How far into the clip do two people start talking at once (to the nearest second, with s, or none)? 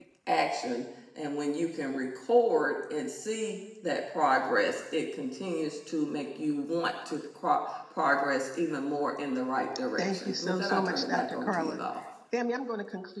10 s